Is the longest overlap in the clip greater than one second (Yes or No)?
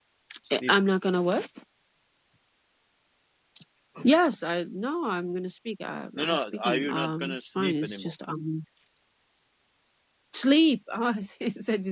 Yes